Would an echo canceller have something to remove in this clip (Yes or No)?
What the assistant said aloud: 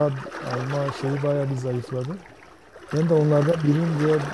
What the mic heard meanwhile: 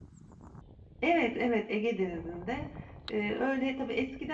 No